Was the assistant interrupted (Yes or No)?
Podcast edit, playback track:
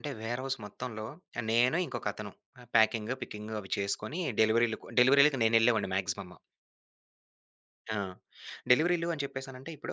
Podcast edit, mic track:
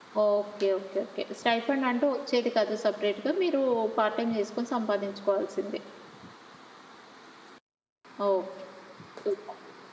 Yes